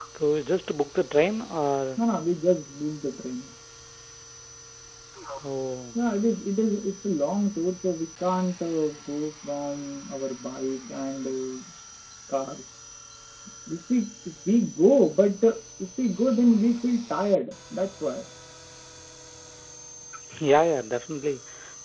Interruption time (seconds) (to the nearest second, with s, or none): none